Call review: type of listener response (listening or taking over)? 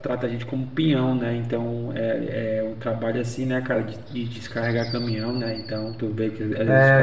taking over